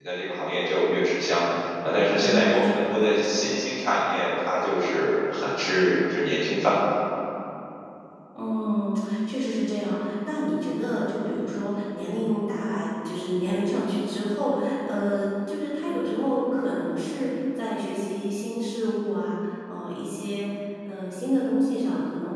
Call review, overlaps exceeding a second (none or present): present